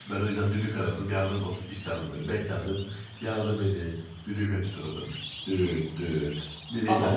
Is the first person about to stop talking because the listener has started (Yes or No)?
Yes